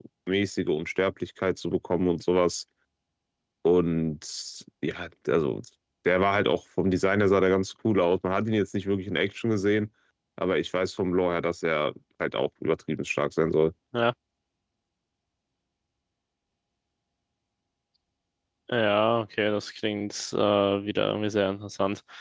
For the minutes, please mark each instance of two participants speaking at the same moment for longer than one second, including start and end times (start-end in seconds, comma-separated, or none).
none